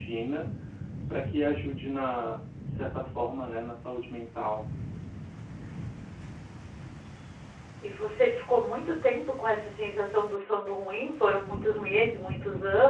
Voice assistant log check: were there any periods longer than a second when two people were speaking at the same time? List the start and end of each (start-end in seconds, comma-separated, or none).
none